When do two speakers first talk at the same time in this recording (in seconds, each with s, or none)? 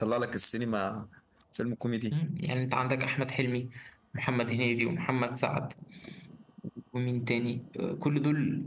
none